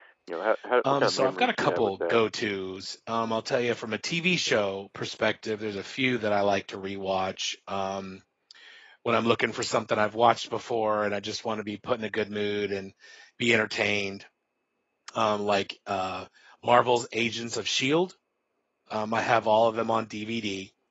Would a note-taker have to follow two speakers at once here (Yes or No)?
Yes